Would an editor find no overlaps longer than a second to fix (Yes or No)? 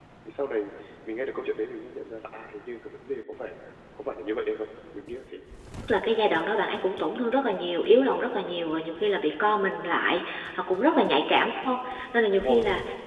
Yes